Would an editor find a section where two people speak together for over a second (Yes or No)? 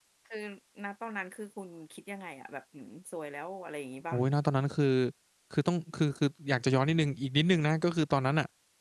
No